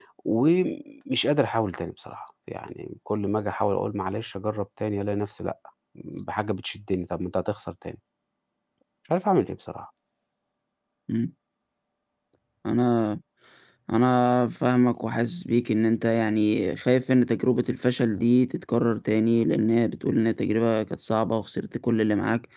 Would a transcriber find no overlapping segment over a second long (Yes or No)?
Yes